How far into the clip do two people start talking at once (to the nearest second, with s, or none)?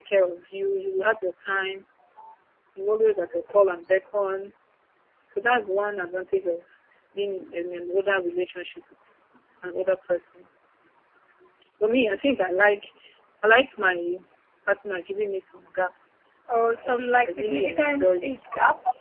17 s